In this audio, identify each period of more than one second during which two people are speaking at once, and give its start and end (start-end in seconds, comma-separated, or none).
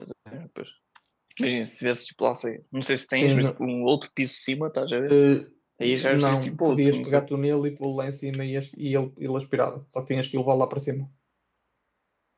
5.8-7.2